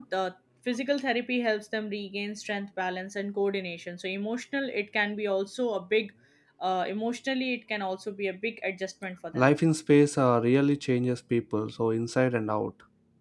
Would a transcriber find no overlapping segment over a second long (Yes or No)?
Yes